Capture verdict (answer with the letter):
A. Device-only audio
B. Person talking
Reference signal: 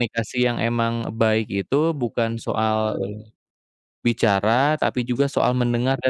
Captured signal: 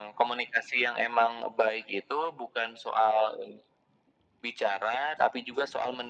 A